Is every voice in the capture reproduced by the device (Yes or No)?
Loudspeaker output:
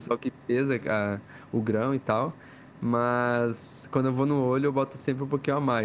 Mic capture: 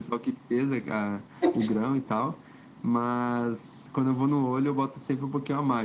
No